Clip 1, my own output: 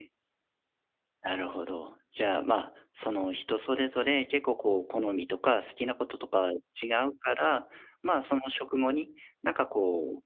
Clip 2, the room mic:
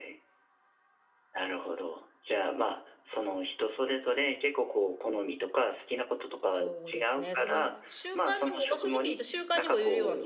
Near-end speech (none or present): present